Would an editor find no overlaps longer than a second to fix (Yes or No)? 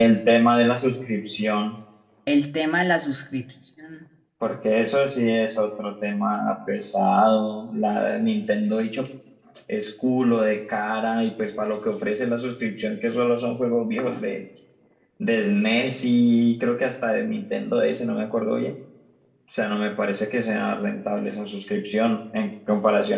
Yes